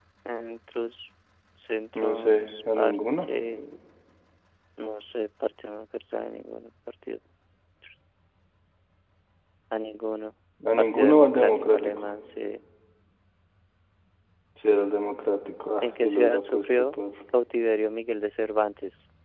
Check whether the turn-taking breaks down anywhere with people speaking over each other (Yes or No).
Yes